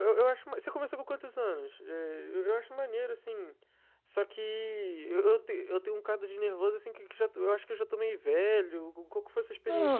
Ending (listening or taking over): taking over